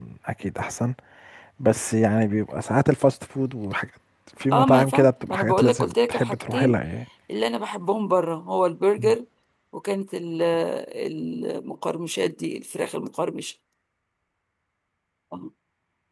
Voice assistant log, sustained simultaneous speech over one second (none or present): present